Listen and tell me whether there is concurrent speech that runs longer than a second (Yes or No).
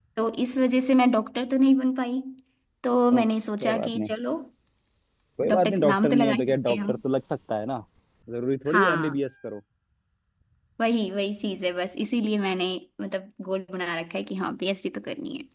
Yes